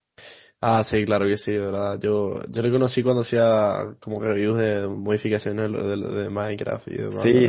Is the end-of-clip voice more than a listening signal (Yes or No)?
Yes